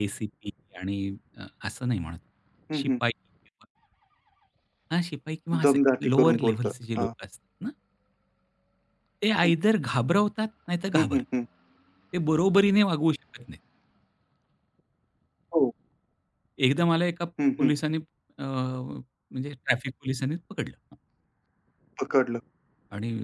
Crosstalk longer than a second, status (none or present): present